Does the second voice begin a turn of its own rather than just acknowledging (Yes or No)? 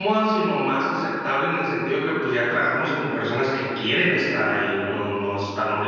Yes